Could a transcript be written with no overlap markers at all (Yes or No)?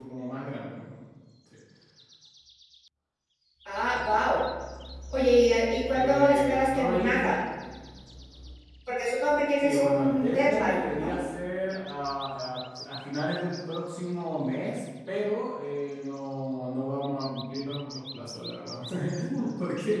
No